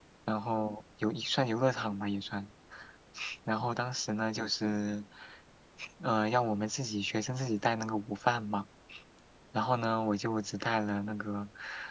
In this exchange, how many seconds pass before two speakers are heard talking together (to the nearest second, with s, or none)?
none